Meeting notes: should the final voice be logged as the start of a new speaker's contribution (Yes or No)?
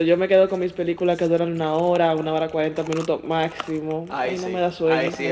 Yes